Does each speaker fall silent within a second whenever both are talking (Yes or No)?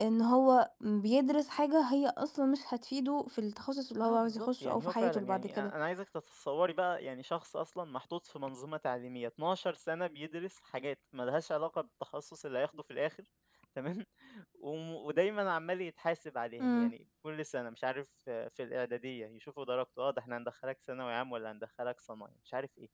No